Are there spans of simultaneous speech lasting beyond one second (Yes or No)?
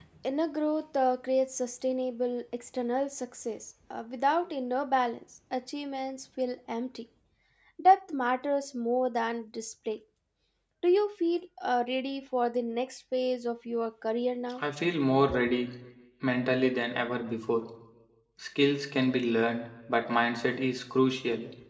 No